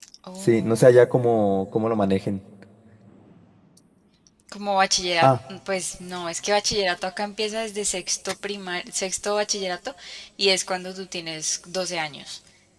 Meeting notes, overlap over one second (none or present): none